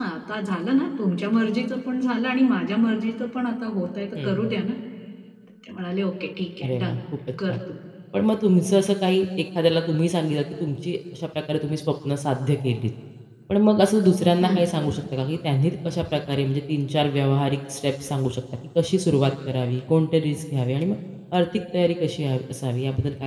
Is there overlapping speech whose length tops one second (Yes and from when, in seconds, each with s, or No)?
No